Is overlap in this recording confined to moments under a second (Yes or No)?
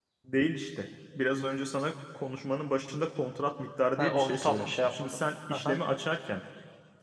No